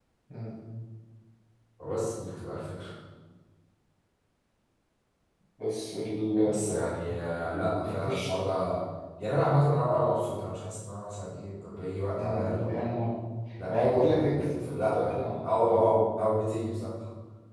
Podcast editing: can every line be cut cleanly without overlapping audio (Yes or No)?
No